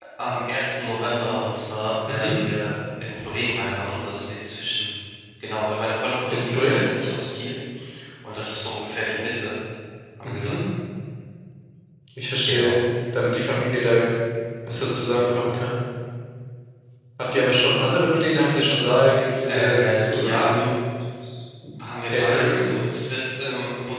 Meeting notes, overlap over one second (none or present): present